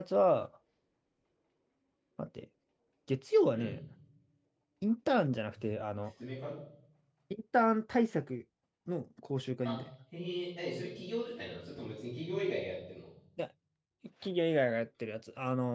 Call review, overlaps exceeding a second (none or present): none